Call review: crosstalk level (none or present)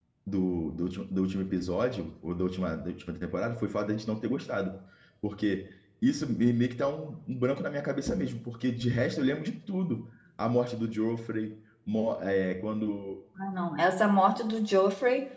none